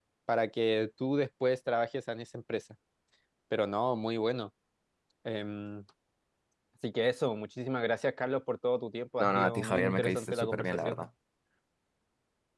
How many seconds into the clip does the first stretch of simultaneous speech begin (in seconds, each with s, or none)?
9.2 s